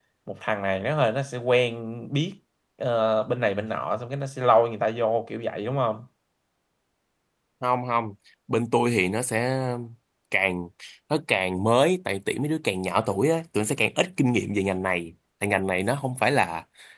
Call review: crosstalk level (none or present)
none